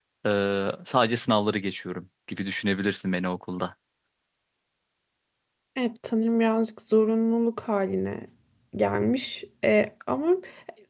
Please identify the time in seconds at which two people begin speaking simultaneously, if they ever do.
none

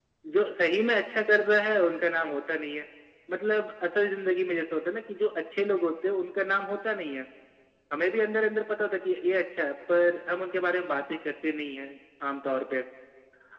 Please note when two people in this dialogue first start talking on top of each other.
none

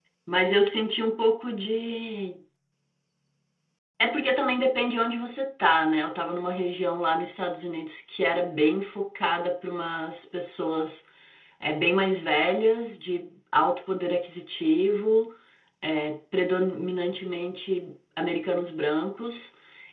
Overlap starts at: none

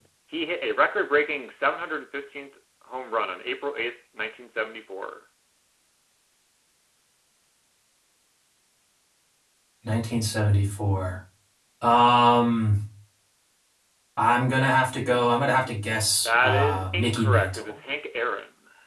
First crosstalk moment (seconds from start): 16 s

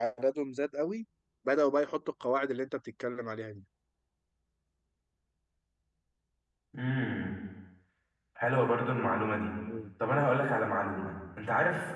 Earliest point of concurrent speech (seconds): none

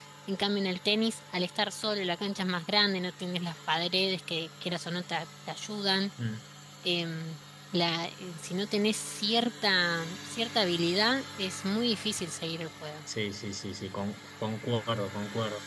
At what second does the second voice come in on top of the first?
none

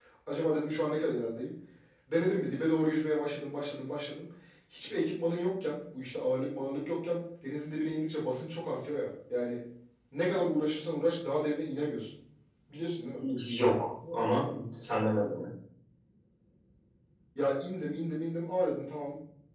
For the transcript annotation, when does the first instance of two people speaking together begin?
none

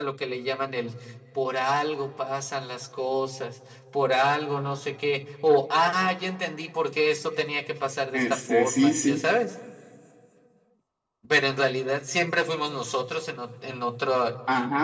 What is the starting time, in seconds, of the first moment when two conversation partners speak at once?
8 s

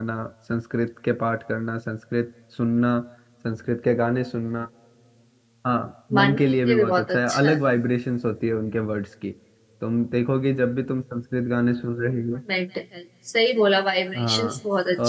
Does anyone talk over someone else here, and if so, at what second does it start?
6 s

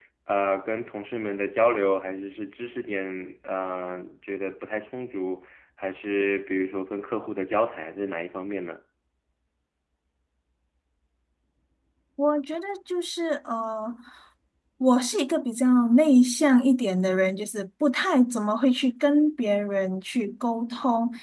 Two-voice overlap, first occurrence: none

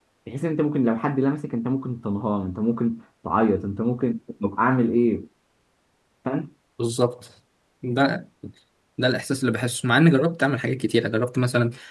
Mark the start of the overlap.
none

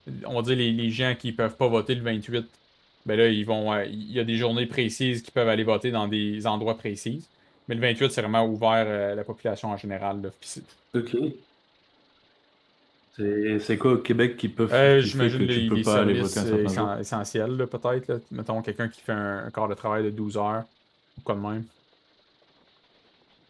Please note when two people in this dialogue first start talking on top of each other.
15 s

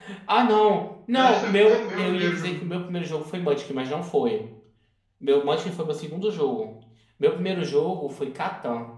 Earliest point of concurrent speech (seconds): 1 s

